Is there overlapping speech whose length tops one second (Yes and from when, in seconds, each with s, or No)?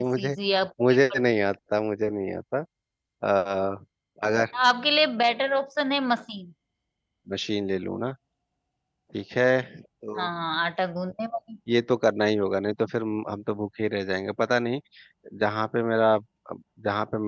No